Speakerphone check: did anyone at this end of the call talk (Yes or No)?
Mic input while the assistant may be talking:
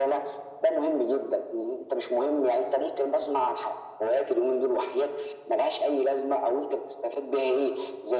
No